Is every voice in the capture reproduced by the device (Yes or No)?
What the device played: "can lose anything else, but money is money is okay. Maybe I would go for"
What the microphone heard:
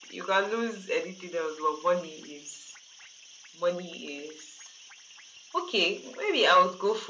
Yes